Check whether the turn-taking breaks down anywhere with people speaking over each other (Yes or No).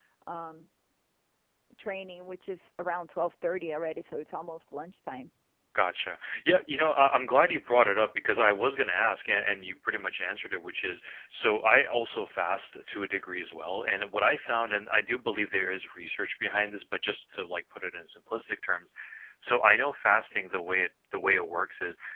No